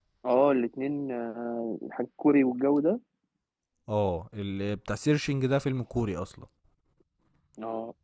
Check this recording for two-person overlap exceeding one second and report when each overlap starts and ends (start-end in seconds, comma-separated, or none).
none